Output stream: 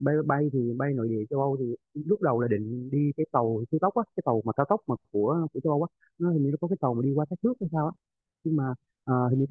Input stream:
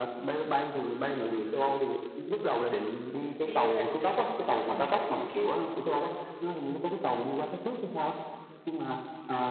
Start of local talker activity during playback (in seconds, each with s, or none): 3.4 s